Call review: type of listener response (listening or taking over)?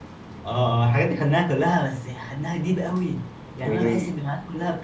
listening